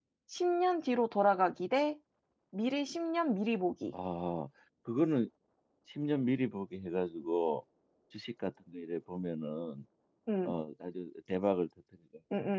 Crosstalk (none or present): none